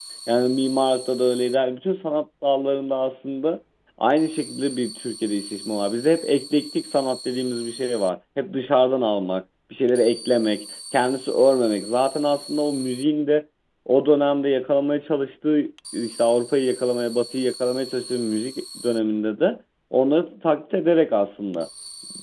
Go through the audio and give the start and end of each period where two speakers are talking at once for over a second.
none

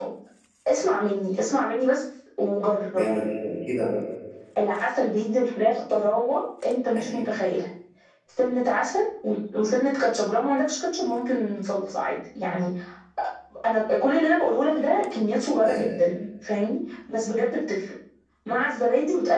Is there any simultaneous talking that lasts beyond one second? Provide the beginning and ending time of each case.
none

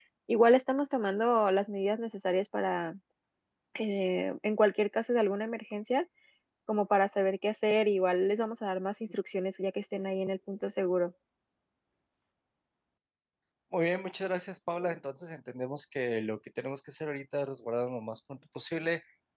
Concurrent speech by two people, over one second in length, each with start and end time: none

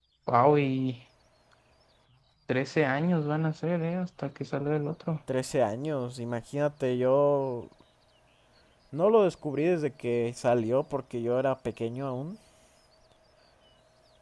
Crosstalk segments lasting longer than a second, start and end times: none

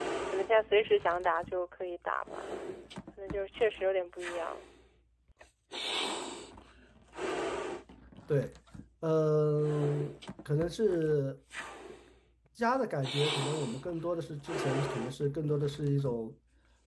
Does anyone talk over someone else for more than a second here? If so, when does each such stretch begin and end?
none

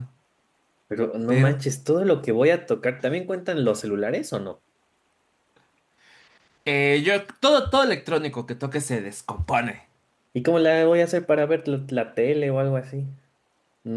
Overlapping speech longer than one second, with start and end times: none

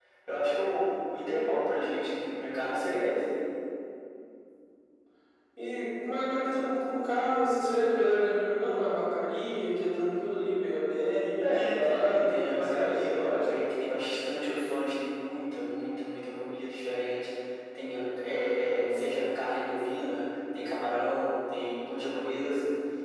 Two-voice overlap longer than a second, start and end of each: 11.4-13.6

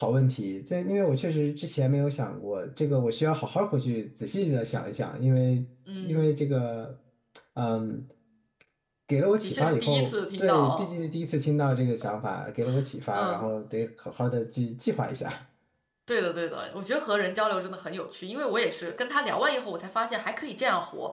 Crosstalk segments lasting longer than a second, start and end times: 9.4-10.9

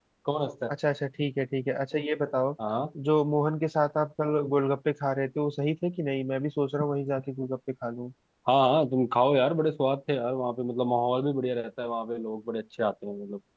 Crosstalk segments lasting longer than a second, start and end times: none

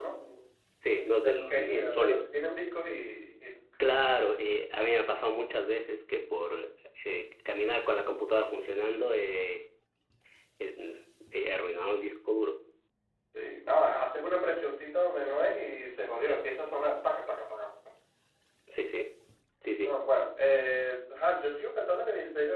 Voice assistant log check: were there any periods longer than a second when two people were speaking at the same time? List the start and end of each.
1.0-2.3

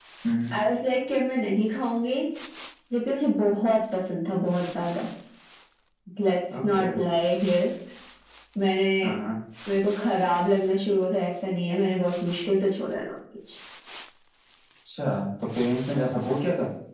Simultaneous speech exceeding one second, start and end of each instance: none

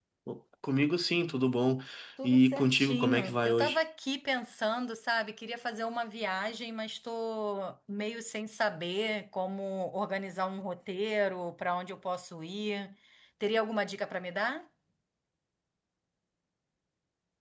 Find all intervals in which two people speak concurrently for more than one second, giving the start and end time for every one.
2.2-3.8

